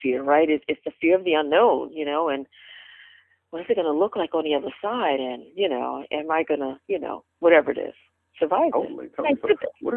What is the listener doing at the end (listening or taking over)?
taking over